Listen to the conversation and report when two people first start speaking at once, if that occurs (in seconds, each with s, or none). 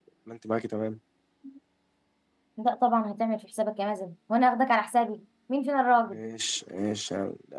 none